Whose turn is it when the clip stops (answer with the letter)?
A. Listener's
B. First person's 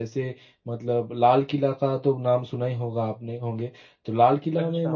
B